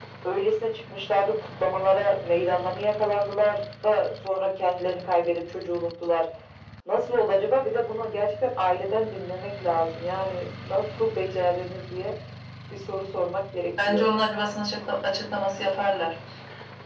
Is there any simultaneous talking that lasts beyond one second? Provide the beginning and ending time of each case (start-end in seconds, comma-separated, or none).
none